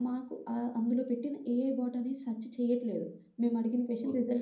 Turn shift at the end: No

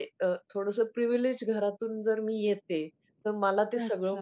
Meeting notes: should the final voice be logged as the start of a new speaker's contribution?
No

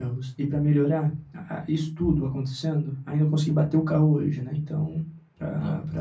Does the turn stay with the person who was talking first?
Yes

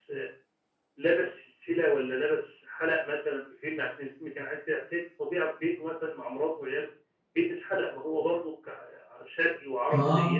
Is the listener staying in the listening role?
Yes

